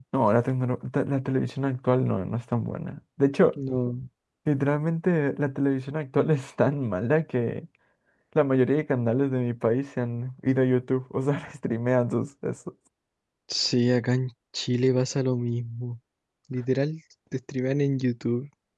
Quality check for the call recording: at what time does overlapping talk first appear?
none

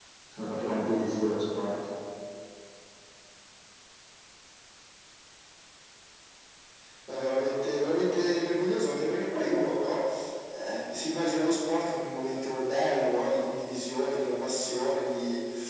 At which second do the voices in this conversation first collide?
none

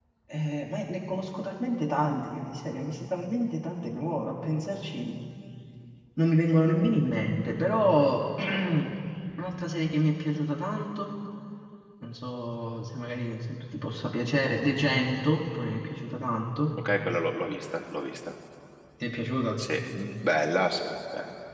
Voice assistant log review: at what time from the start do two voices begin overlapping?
none

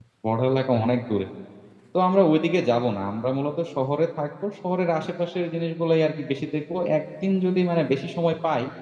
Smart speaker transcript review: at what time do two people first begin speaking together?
none

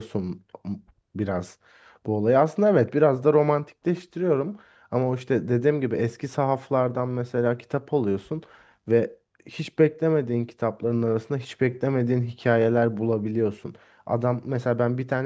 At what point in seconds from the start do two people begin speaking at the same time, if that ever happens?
none

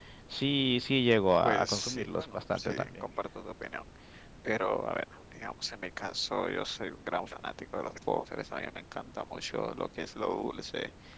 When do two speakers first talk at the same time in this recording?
1.4 s

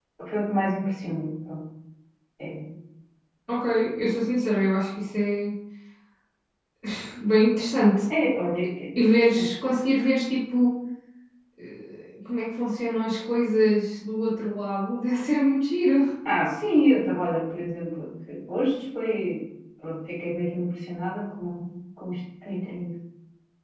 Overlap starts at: none

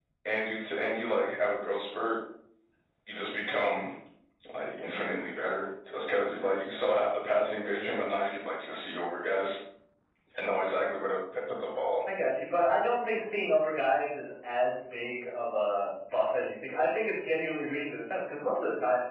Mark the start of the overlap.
none

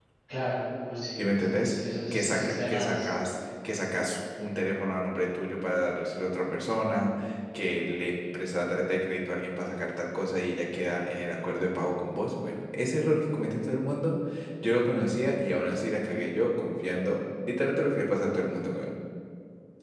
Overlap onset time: 1.2 s

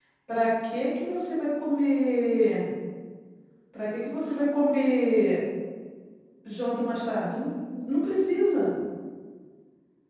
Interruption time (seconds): none

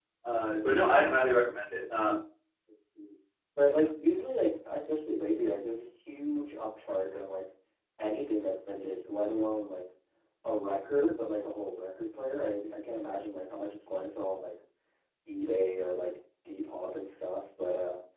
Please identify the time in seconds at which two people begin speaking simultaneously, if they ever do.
none

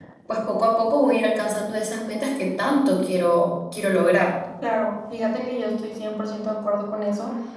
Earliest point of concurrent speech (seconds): none

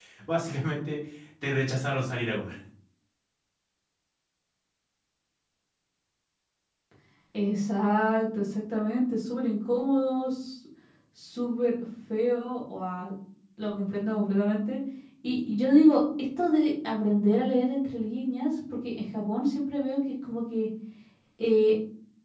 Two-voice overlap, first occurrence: none

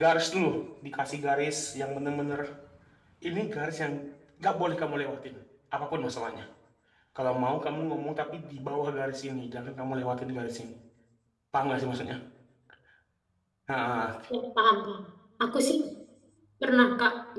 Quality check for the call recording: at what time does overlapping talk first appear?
none

